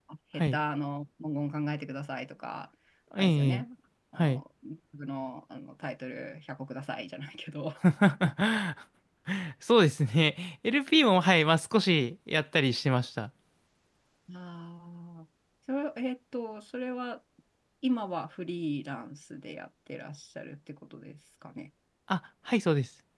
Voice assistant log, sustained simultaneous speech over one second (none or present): none